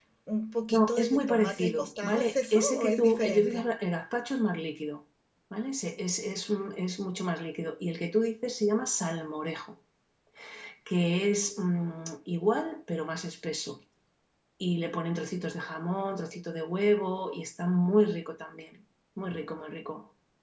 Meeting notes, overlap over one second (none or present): present